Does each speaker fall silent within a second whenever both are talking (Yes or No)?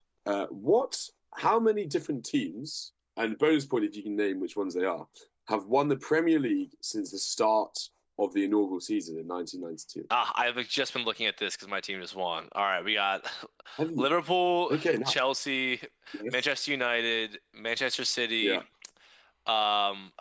Yes